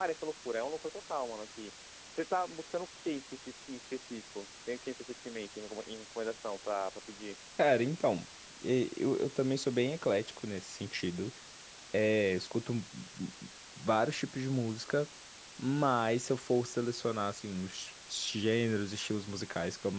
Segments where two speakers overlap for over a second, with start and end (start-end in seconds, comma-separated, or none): none